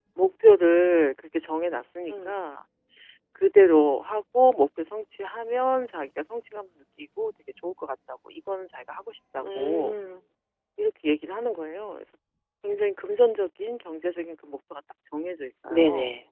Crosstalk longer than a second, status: none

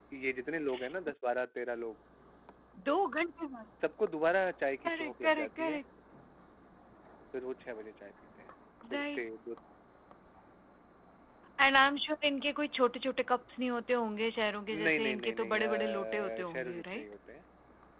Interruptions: present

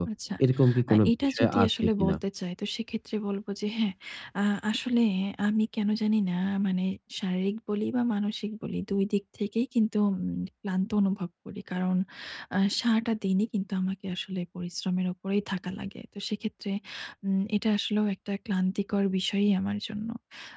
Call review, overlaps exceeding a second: present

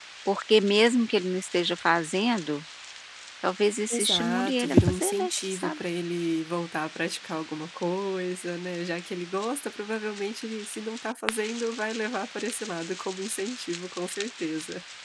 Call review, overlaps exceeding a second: present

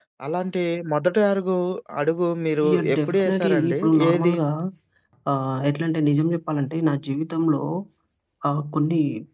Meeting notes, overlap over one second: present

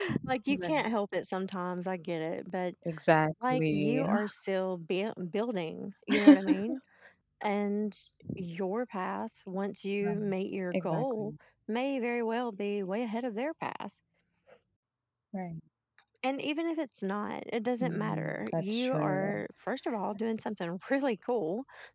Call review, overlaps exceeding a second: present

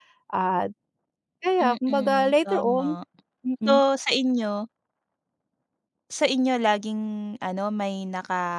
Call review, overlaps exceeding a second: present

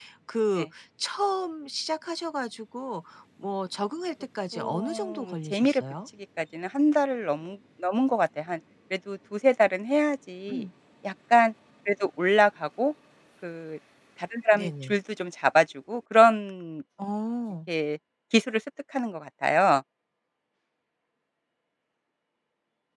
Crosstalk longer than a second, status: present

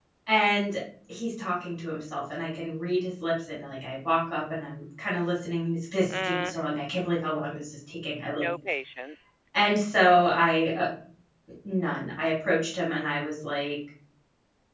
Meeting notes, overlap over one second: none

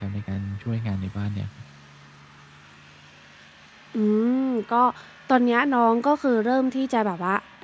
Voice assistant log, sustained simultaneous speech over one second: none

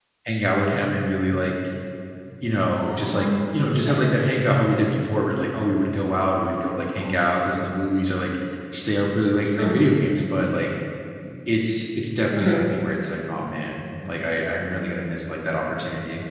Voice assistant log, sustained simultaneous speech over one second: present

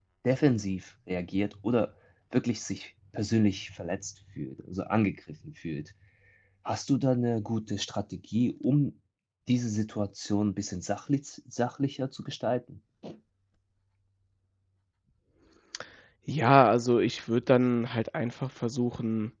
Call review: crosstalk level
none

